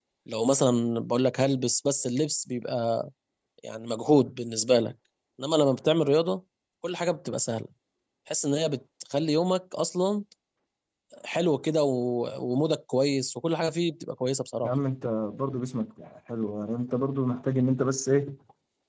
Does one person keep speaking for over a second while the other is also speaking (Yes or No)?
No